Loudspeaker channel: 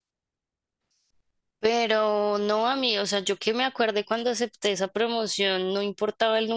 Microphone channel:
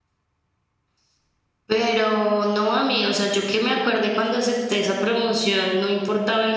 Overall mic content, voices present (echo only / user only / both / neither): echo only